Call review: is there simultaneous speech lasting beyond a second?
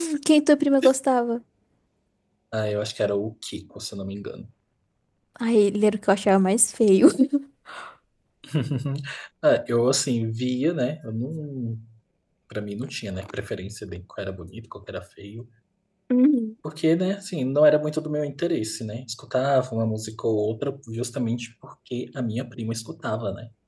No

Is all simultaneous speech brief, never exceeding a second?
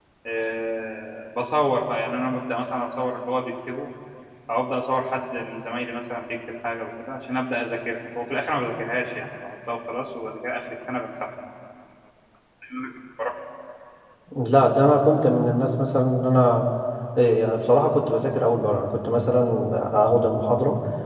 Yes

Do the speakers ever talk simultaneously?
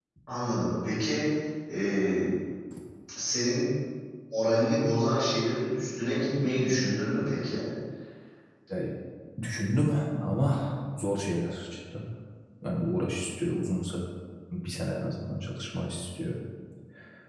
No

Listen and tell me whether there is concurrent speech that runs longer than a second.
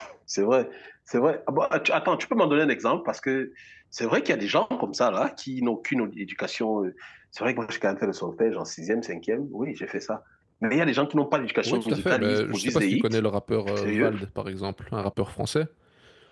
Yes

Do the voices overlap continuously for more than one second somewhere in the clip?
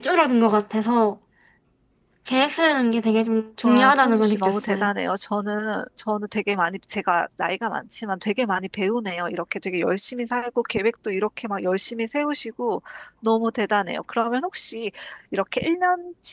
Yes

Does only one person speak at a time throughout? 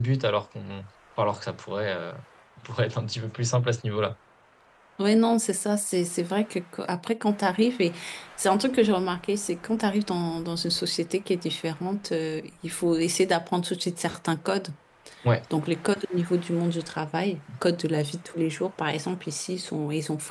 Yes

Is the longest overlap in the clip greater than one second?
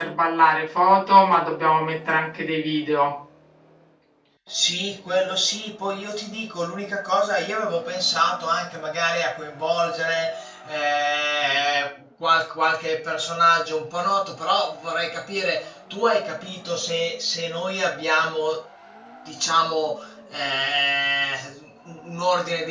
No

